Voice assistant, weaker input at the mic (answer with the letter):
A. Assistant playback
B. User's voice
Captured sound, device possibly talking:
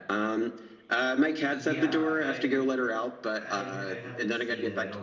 B